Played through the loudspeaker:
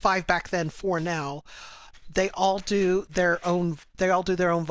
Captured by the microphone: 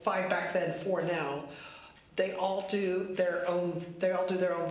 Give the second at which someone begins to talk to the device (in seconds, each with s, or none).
none